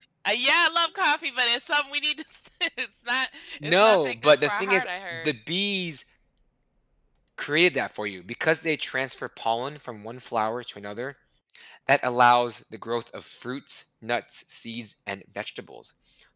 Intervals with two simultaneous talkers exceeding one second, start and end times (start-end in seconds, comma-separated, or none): 3.6-5.3